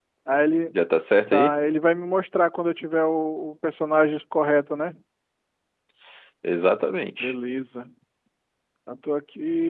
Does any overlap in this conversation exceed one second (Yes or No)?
No